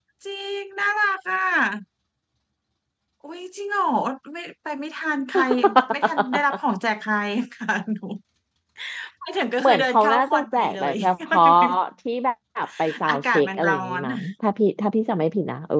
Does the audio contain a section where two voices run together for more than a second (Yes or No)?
Yes